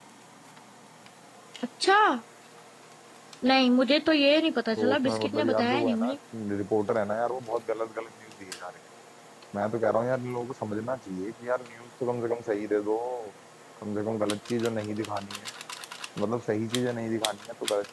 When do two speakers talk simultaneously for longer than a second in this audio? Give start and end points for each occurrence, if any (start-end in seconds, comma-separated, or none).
4.8-6.1